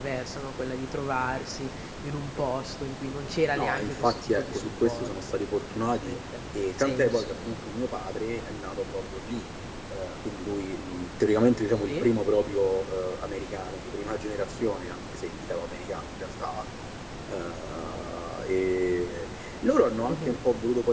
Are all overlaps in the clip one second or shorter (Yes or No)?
No